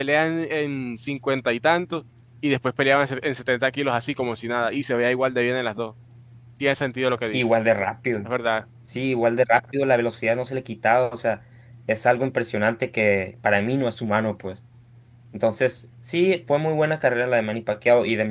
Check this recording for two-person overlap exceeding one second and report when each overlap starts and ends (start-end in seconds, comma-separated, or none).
none